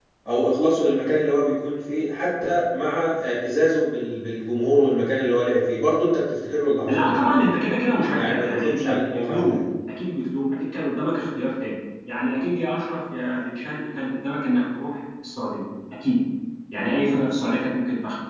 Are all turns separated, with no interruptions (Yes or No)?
No